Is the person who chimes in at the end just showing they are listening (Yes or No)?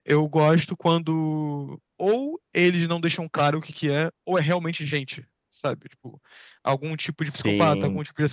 Yes